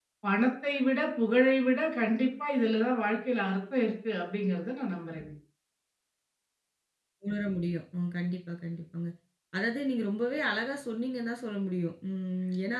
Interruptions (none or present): none